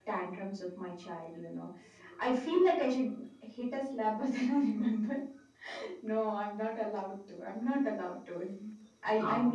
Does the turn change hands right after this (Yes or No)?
No